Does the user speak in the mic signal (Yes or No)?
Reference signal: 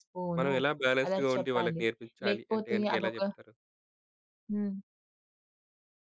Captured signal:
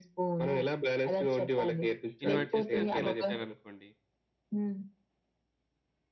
Yes